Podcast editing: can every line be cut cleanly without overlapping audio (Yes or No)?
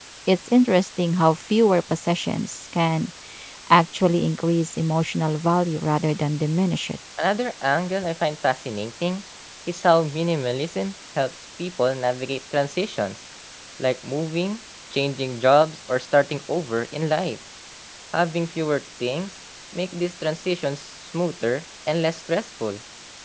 Yes